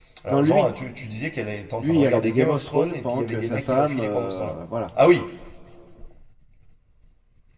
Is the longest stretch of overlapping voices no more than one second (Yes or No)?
No